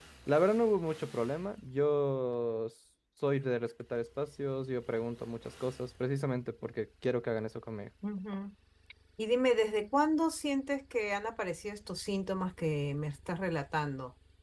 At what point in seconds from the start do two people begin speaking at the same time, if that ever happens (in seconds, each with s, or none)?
none